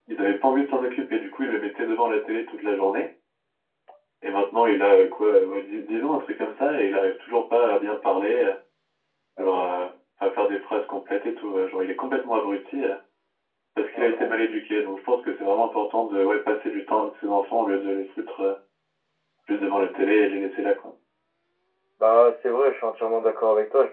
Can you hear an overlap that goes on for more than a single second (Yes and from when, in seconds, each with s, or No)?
No